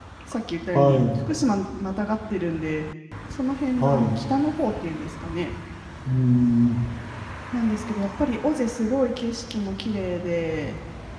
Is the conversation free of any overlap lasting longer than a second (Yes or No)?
Yes